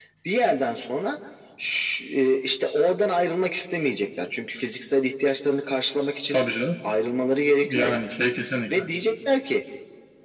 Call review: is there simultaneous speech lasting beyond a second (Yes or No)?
No